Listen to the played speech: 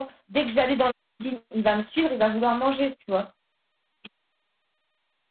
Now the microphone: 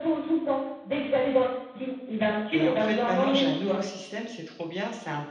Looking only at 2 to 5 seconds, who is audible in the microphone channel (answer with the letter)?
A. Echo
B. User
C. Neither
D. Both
D